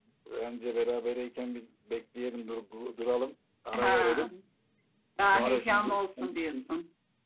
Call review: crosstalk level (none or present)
present